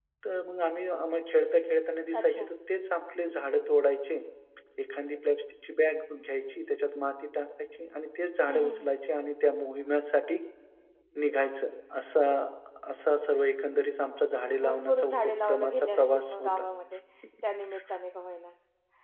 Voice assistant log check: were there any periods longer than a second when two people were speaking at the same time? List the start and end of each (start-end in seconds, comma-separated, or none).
14.6-16.5